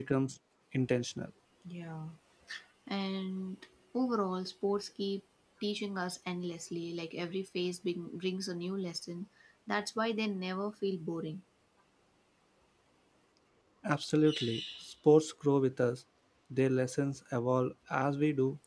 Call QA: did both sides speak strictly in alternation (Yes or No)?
Yes